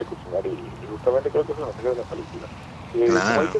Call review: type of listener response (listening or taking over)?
listening